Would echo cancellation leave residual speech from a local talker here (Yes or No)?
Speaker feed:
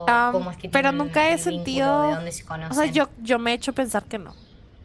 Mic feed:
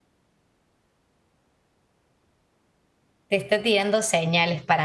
Yes